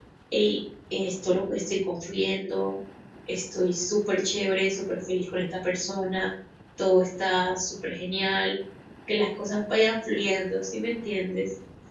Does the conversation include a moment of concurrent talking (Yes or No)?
No